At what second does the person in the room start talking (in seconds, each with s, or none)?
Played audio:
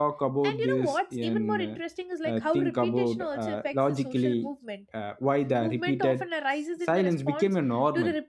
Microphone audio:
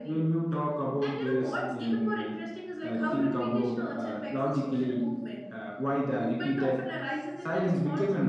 none